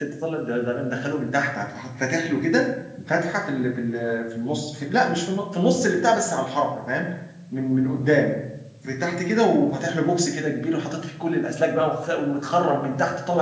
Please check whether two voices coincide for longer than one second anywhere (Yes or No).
No